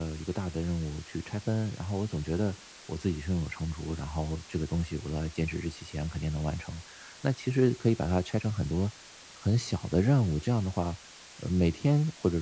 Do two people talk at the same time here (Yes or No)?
No